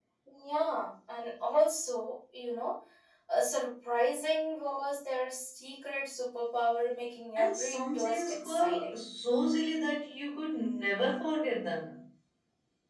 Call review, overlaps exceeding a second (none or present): present